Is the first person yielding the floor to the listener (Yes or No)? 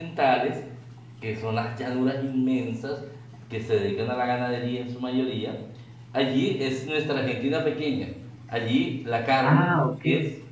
No